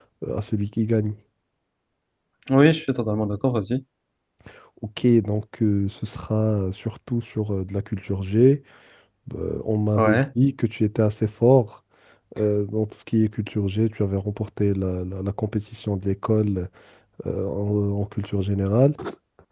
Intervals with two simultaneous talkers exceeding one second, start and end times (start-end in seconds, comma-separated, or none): none